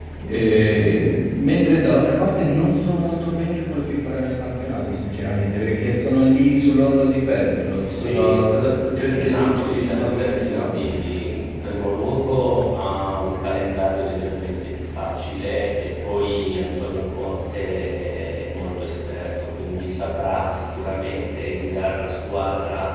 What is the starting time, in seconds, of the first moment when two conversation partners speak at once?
7.8 s

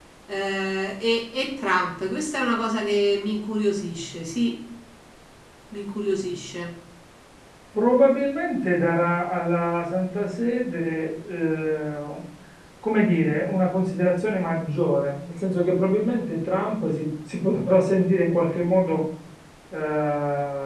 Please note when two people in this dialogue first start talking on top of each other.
none

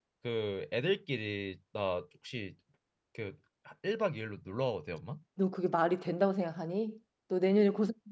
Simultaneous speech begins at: none

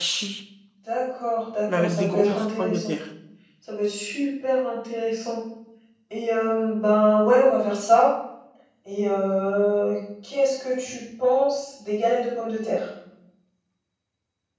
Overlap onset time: 1.7 s

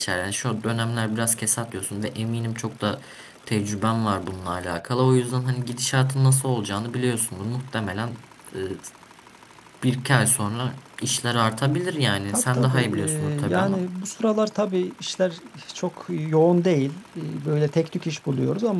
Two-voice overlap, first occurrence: 12.3 s

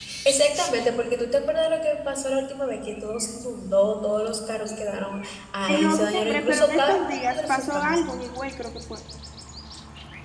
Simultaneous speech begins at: 5.7 s

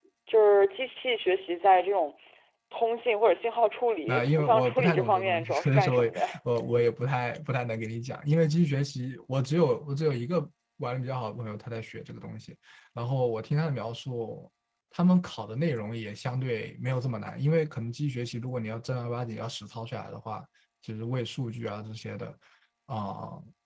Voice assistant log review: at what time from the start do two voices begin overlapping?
4.1 s

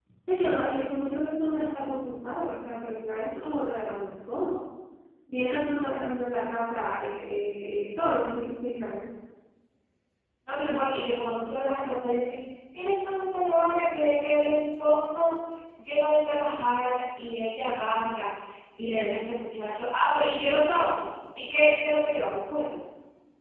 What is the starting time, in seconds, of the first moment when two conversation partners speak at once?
none

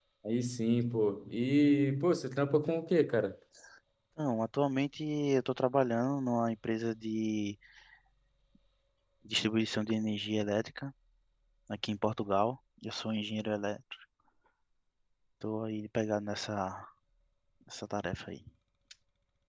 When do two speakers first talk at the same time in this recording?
none

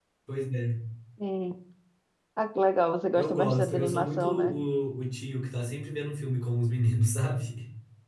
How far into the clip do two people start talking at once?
3.1 s

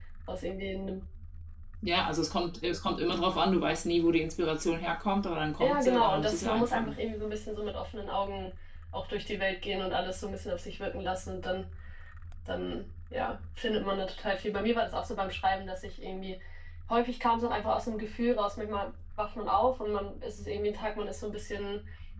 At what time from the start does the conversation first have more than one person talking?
5.6 s

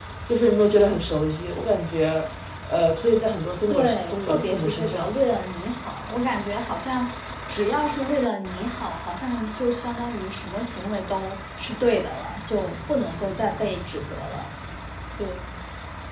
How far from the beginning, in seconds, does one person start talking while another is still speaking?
3.7 s

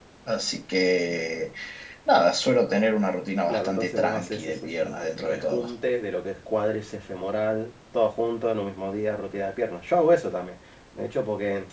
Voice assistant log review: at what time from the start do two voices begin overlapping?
3.5 s

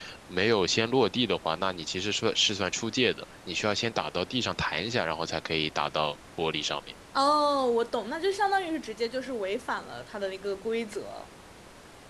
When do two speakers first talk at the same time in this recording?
none

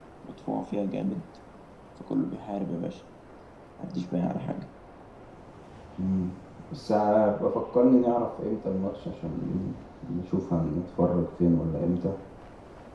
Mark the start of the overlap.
none

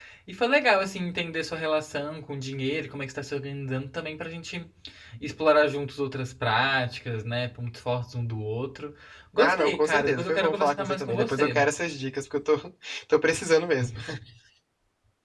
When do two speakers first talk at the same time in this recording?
9.4 s

